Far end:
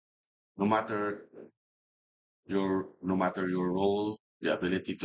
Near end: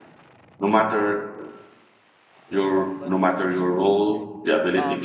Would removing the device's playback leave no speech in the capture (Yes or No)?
No